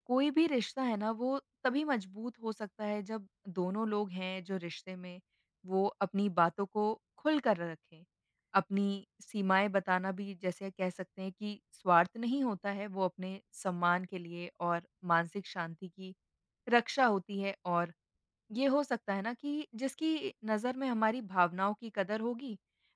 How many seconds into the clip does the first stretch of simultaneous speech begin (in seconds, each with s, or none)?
none